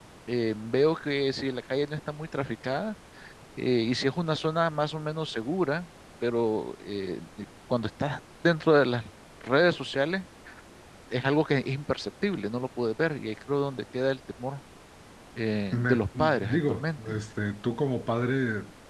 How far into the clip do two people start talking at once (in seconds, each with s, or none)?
15.7 s